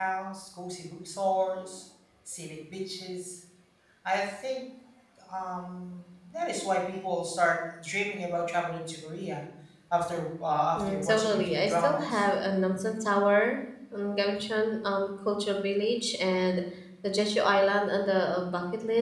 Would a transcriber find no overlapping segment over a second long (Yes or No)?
No